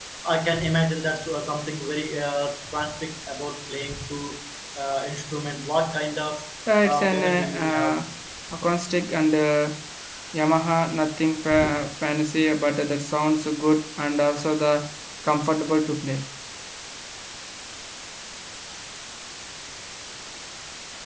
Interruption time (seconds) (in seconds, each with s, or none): 6.8 s